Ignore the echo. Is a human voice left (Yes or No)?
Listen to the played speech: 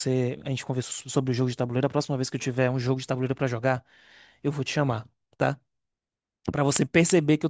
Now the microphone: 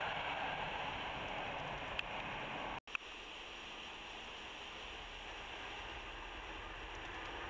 No